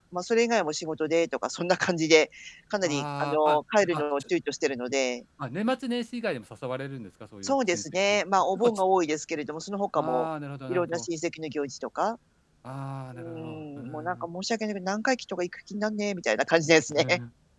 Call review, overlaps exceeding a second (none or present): present